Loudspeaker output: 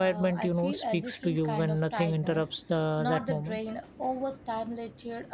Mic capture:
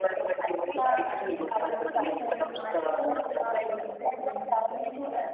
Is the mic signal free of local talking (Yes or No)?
No